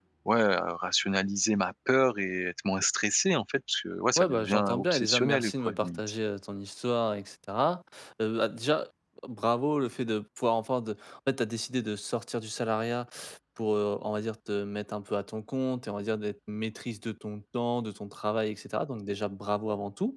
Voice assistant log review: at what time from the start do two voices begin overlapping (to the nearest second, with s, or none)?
4 s